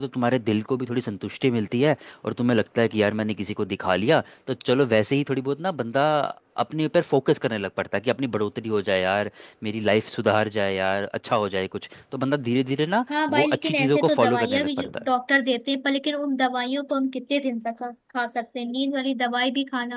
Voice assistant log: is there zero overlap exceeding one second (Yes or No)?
No